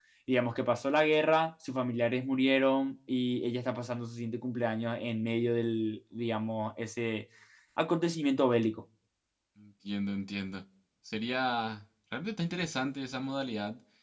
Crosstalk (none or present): none